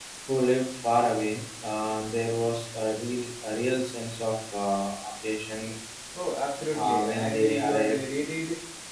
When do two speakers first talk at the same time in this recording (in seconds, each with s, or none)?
6.7 s